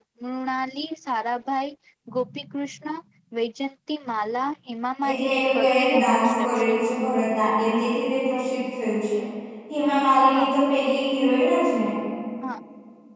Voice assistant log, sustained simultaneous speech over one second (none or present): present